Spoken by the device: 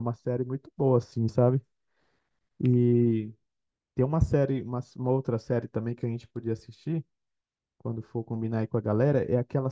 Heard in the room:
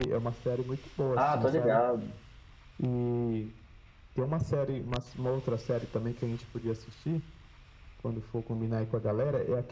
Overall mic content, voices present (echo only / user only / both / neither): both